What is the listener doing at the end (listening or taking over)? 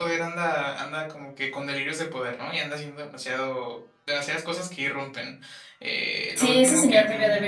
taking over